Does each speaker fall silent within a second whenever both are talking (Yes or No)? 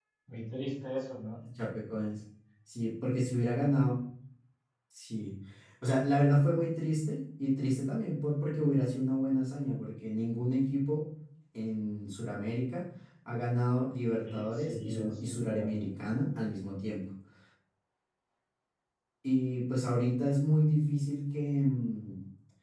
No